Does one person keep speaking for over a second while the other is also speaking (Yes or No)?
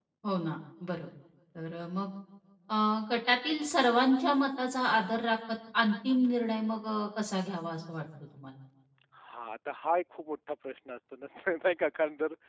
No